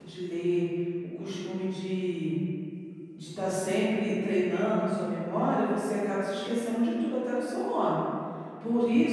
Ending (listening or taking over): listening